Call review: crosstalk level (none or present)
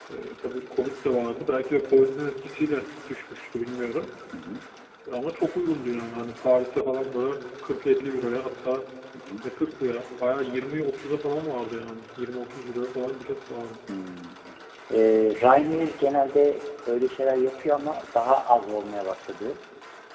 none